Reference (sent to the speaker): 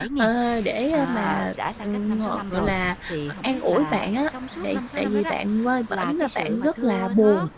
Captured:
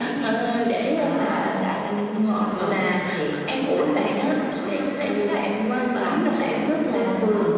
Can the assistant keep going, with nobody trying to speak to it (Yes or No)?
No